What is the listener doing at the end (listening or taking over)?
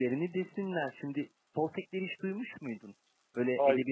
listening